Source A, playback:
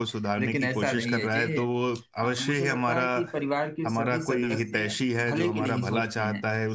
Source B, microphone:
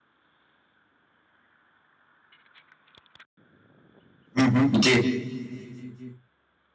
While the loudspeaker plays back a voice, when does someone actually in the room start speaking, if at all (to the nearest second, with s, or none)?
4 s